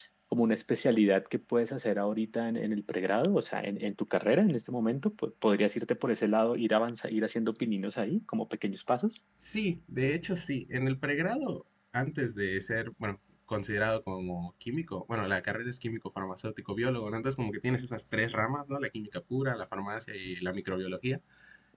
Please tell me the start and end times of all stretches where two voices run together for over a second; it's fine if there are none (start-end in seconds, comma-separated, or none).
none